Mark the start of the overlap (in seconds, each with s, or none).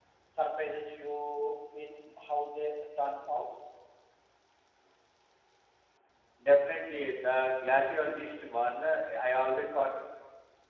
none